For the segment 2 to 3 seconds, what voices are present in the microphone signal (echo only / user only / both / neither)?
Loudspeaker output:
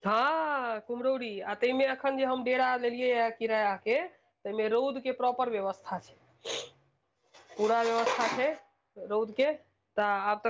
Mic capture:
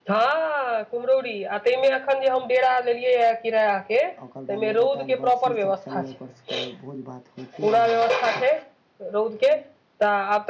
echo only